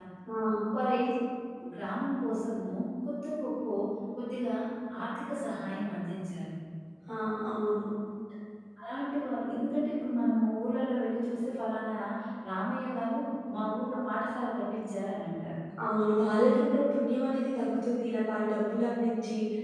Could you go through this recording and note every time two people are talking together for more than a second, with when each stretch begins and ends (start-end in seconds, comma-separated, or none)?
none